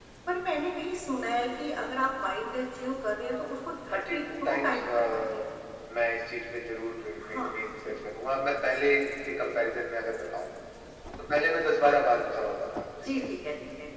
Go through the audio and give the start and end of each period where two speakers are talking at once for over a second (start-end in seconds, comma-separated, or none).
3.9-5.4